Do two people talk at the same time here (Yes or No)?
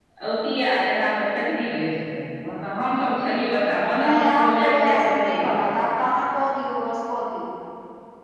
Yes